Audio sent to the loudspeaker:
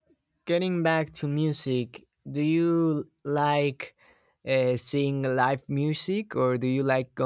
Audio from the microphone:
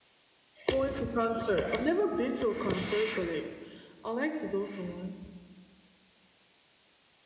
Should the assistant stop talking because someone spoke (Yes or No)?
Yes